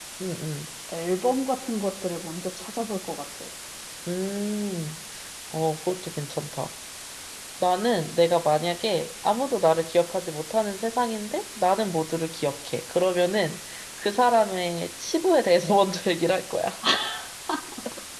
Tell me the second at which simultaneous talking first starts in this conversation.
none

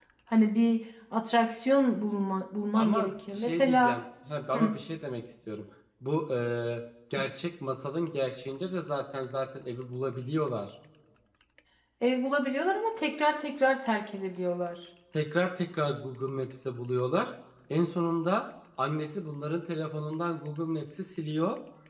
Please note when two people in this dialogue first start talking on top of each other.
2.8 s

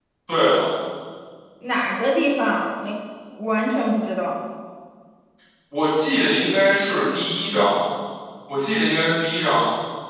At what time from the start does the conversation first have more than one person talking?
none

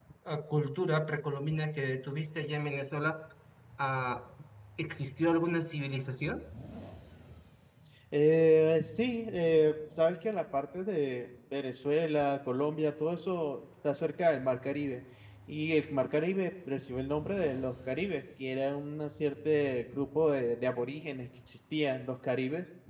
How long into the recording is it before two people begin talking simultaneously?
none

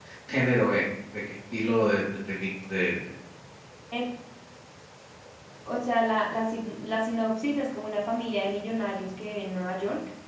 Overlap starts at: none

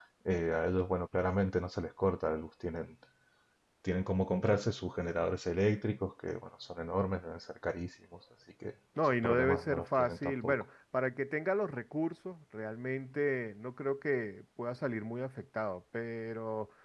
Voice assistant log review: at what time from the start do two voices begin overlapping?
9.2 s

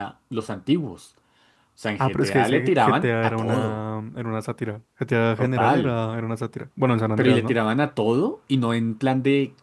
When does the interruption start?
2.0 s

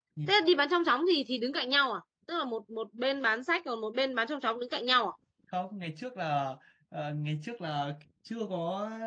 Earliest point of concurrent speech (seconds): none

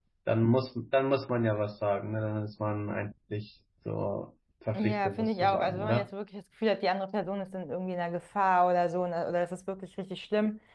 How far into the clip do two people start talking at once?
4.7 s

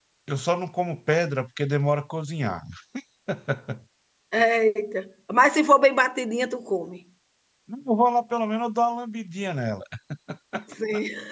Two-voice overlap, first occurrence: none

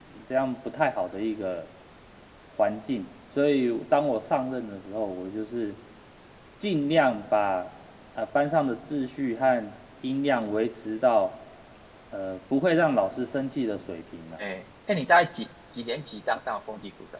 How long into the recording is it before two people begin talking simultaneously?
none

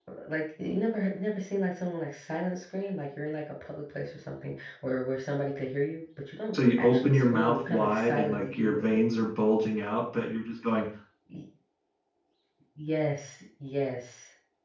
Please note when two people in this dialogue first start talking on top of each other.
6.5 s

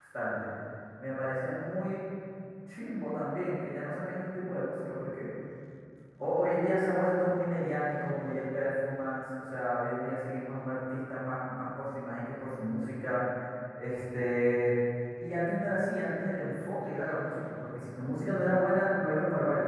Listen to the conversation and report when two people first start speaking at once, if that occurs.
none

